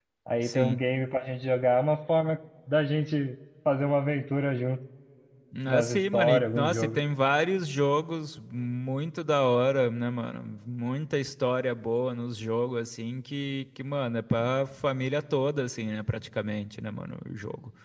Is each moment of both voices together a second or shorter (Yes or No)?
No